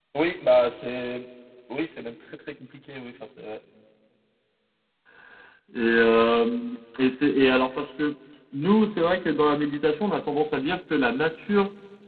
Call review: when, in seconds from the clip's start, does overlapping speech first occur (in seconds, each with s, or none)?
none